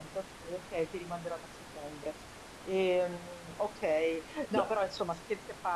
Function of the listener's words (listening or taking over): listening